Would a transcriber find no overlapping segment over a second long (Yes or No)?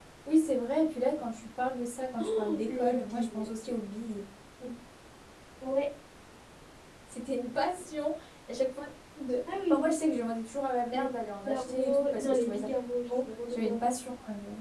No